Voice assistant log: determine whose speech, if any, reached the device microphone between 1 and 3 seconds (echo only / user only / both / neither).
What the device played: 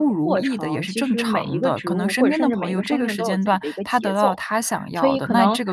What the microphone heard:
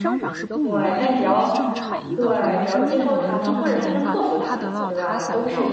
both